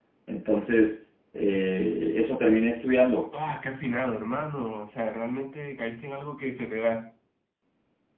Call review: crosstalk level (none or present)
none